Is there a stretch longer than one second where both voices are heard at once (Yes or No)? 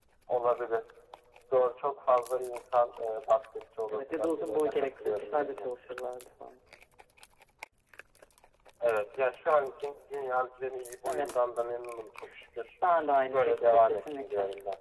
Yes